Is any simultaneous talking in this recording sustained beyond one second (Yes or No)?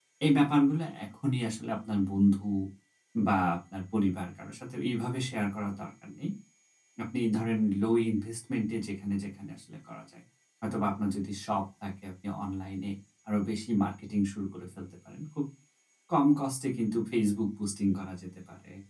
No